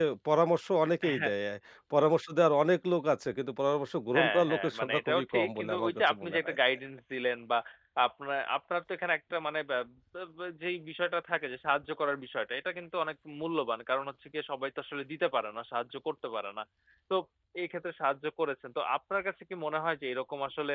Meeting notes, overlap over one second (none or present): present